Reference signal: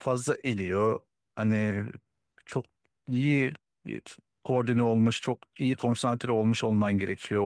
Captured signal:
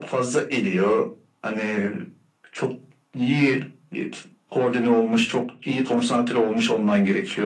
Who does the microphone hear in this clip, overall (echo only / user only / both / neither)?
echo only